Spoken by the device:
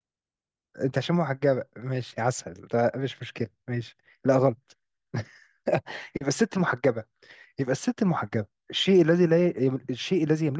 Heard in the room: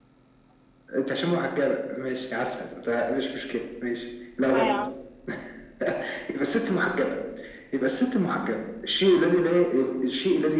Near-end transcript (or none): صايعة